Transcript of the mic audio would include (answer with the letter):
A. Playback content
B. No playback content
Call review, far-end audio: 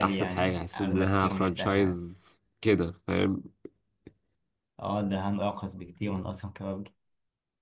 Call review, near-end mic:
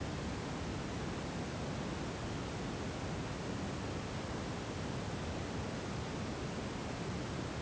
B